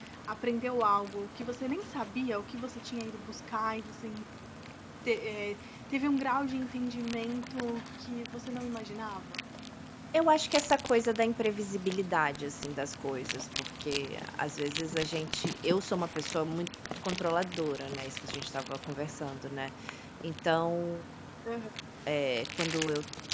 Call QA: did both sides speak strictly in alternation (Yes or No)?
Yes